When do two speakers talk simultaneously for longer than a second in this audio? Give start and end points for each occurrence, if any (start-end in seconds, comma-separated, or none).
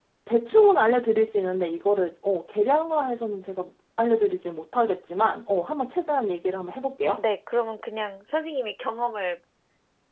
none